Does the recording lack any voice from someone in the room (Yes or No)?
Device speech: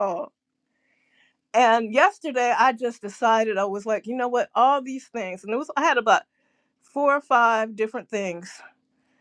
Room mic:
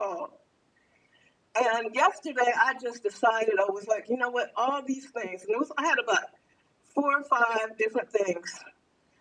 Yes